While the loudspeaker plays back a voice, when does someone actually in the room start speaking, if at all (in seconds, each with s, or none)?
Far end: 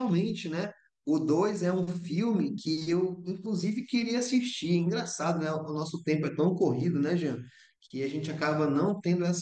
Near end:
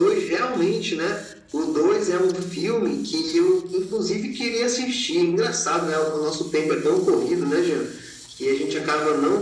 none